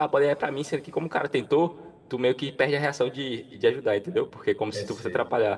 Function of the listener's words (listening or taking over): listening